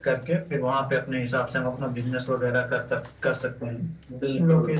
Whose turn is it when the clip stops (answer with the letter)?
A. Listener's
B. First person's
B